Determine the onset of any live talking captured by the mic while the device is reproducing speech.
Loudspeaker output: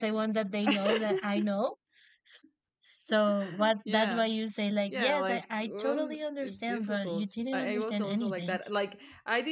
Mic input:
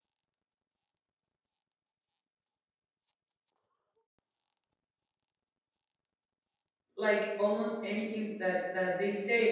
7 s

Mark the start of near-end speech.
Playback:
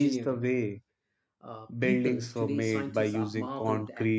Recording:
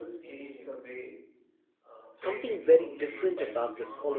2 s

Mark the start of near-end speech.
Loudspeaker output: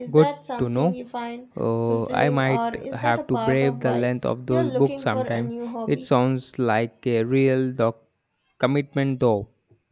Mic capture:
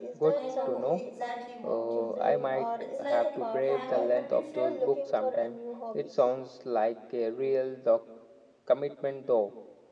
0 s

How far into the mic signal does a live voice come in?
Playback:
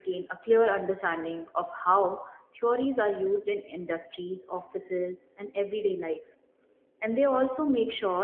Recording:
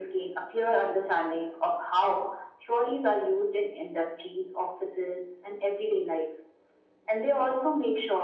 none

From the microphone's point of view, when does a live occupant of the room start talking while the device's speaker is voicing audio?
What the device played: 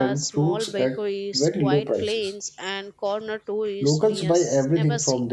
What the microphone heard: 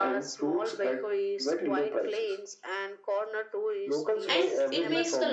4 s

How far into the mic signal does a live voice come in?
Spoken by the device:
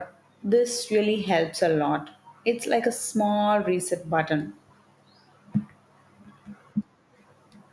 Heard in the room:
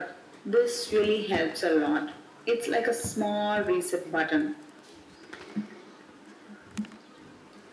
none

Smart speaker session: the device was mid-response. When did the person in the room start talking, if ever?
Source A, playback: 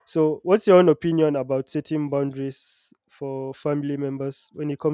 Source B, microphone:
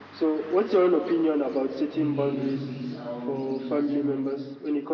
2 s

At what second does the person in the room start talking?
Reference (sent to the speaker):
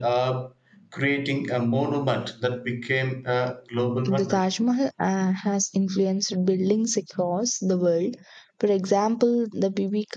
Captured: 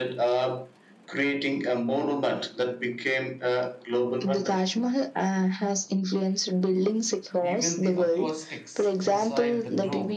7 s

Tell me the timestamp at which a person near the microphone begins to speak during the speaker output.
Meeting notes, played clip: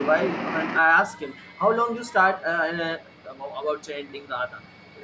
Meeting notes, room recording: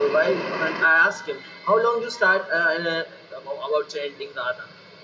none

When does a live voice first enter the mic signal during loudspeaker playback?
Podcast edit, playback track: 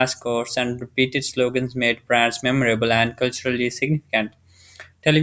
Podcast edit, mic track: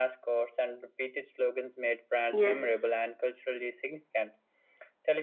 2 s

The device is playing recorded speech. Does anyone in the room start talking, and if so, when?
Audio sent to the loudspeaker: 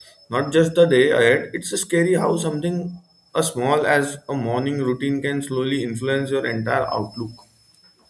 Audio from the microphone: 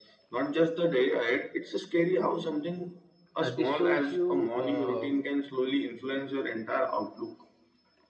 3 s

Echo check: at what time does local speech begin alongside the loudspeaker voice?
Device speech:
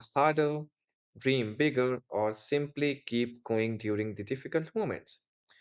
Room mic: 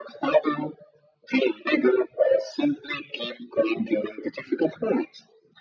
none

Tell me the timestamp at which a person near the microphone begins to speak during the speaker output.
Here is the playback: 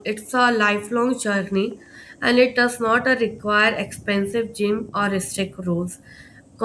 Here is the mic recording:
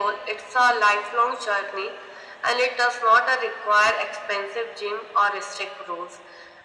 none

